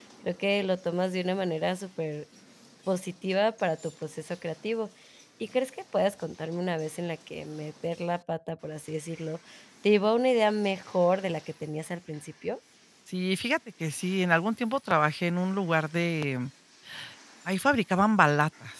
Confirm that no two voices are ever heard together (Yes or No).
Yes